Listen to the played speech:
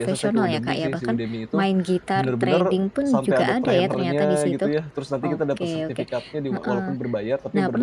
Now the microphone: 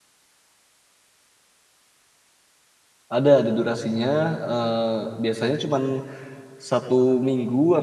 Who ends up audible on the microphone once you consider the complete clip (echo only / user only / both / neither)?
user only